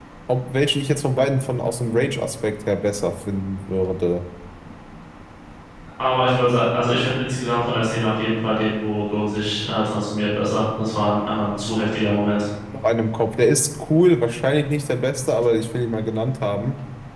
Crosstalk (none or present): none